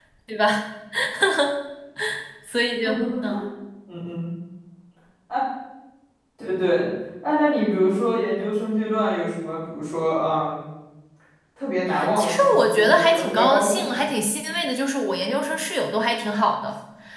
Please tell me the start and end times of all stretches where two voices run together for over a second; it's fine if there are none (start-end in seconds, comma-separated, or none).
12.2-14.1